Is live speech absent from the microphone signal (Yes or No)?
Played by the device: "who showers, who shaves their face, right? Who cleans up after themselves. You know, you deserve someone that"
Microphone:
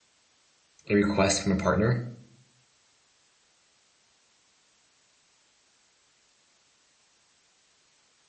No